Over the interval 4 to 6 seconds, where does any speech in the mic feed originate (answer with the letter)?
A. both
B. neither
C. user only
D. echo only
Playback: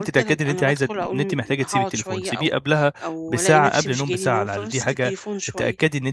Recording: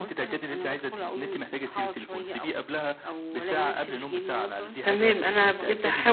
A